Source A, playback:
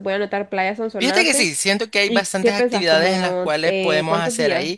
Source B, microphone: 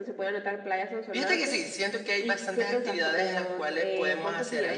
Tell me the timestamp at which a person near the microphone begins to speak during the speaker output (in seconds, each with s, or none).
none